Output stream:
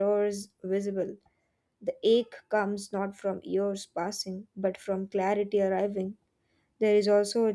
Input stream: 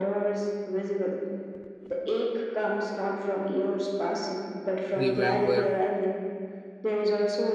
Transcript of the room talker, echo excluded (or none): remember